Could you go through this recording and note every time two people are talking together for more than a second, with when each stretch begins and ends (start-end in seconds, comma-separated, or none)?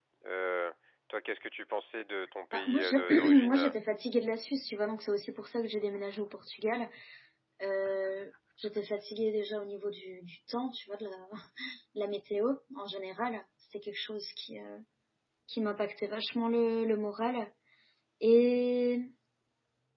2.5-3.7